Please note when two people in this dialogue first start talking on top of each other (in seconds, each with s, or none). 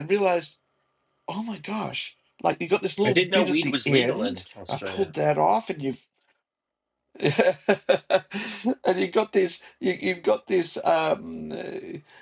3.0 s